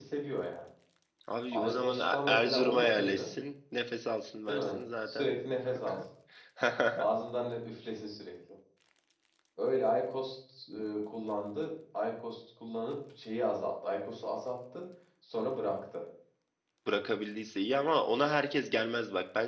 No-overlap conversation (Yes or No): No